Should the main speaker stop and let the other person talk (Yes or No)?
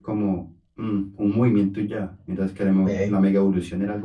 No